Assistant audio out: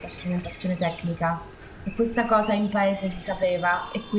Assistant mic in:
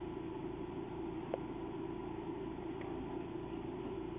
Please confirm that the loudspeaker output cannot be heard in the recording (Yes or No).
Yes